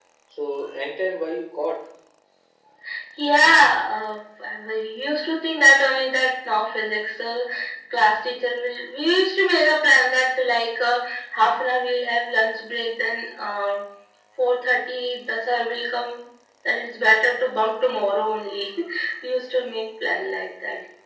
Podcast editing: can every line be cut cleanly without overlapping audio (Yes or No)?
Yes